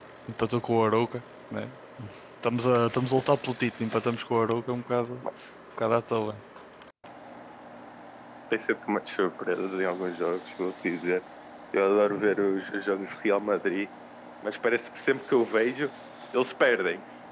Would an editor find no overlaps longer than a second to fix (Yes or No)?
Yes